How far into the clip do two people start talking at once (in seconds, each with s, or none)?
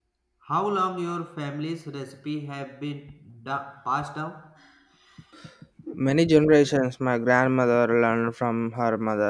none